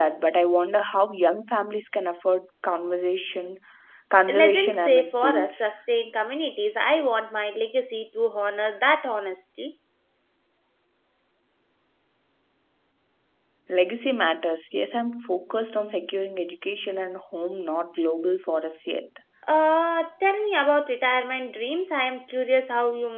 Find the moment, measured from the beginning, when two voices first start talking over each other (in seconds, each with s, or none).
4.3 s